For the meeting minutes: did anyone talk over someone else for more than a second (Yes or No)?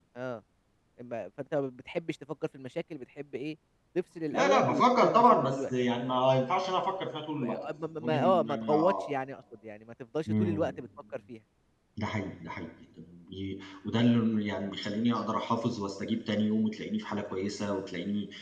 Yes